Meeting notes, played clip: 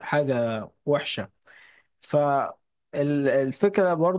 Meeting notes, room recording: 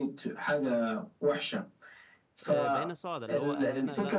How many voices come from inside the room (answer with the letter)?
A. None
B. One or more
B